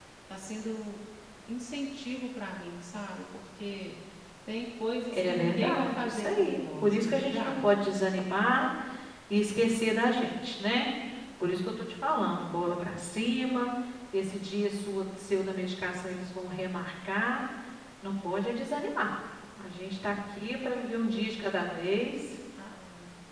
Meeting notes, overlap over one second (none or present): present